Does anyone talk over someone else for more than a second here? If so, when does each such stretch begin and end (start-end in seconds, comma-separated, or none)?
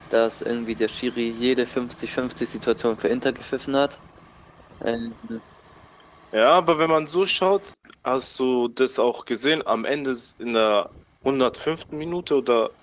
none